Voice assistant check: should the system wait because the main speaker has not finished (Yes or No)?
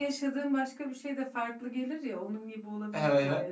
No